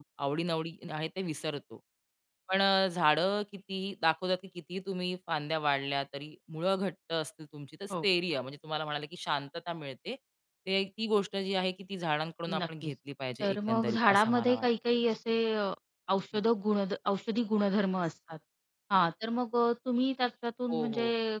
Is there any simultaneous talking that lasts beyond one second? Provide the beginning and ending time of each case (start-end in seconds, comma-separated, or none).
13.4-14.7